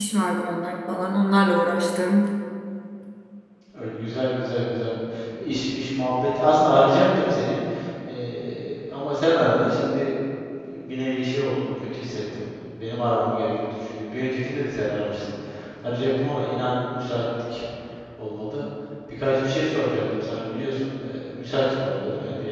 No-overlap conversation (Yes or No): Yes